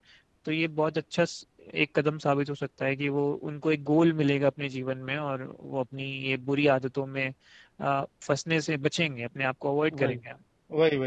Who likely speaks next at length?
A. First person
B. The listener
B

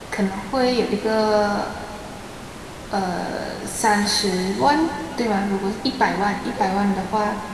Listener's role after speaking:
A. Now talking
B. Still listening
B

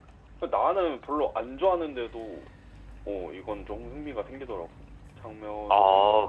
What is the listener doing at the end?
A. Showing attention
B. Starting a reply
B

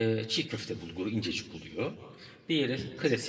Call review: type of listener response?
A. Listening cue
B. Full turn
A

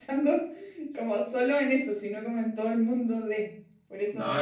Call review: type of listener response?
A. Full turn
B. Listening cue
A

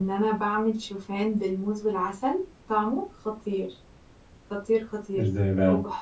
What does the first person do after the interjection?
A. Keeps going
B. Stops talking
A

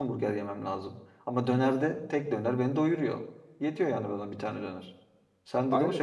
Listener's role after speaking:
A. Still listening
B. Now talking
B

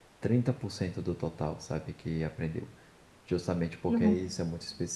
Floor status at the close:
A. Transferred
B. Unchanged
B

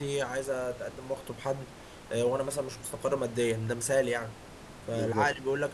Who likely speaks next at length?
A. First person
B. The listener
A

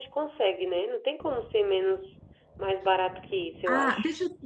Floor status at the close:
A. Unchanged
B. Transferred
B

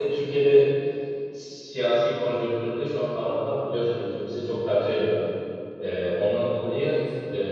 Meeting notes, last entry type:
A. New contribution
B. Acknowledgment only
B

